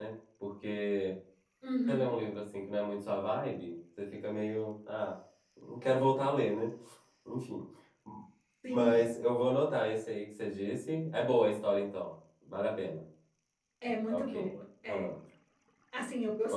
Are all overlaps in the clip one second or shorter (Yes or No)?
Yes